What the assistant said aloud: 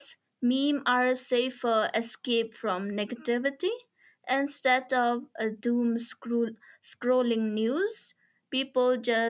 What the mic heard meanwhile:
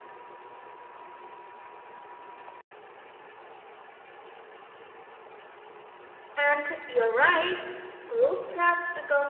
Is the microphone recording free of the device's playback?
Yes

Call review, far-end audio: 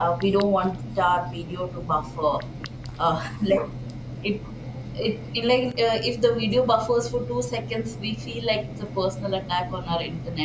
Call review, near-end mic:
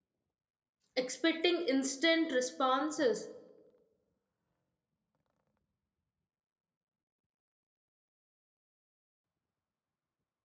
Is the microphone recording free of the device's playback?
Yes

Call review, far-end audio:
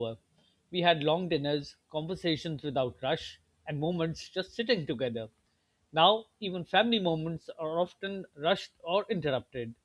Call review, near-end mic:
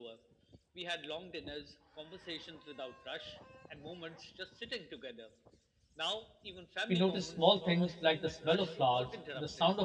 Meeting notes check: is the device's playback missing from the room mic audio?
No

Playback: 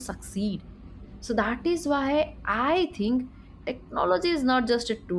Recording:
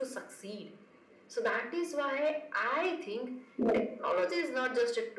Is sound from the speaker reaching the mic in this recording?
Yes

